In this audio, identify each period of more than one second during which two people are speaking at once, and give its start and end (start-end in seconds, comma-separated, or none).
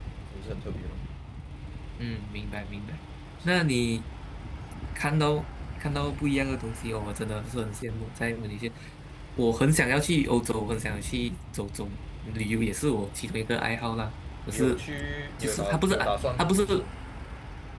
15.4-16.6